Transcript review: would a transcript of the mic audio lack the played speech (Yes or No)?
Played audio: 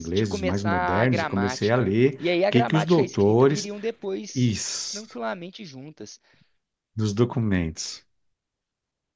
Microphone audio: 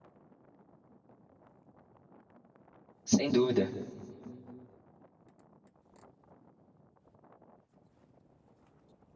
Yes